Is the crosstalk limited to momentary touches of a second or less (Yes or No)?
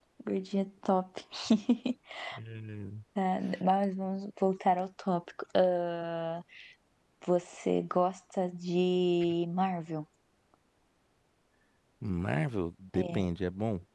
Yes